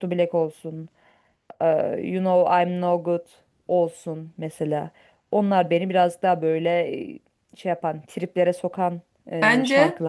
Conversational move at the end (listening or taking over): taking over